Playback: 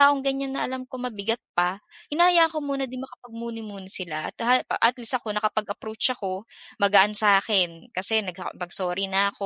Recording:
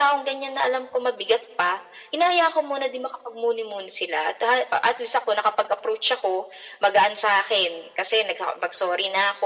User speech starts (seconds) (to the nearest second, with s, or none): none